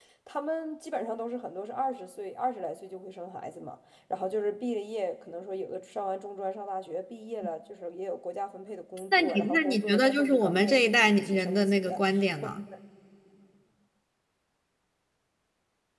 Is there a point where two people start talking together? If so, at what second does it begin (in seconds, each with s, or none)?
9.1 s